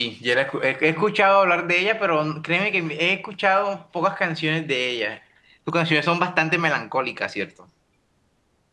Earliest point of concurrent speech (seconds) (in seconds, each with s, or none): none